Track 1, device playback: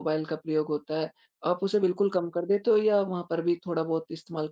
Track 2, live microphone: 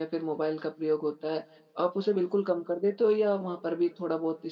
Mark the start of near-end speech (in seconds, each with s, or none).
none